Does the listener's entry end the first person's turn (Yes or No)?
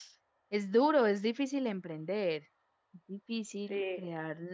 No